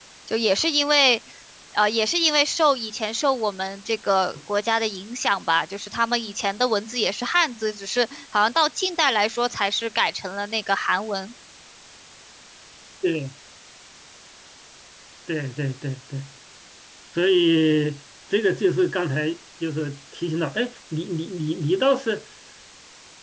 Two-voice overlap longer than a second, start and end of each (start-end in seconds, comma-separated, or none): none